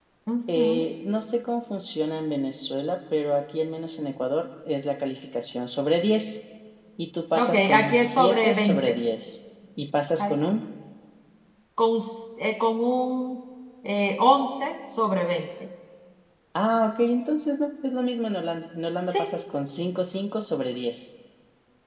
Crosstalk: present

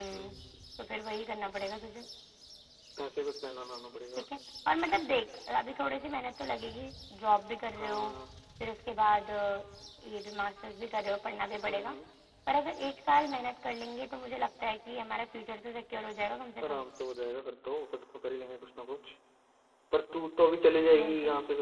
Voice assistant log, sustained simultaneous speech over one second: none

